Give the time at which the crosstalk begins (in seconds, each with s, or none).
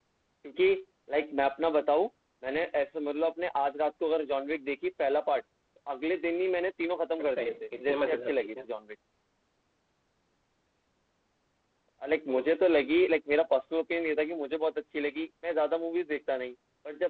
7.2 s